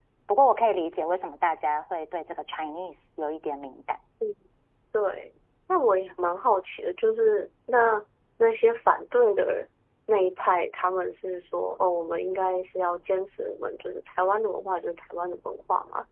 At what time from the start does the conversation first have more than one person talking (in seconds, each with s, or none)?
none